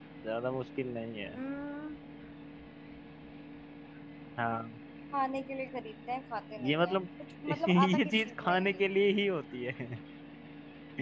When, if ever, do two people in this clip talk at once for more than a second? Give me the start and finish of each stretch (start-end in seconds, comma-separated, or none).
7.5-8.8